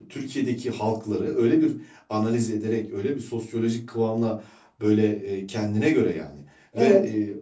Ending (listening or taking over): listening